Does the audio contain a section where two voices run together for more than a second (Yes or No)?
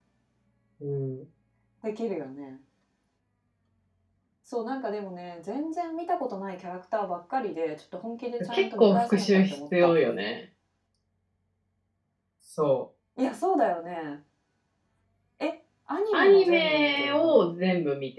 Yes